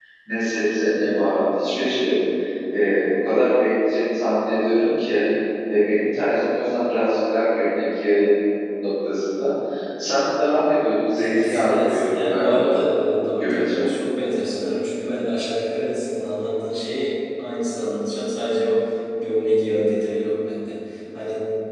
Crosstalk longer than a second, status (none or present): present